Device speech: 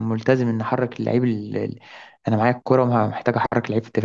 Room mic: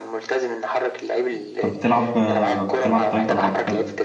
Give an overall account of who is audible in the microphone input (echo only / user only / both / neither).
both